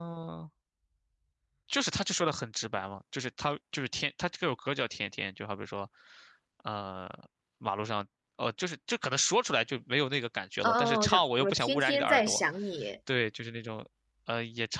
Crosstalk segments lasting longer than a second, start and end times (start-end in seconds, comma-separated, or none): 10.6-12.4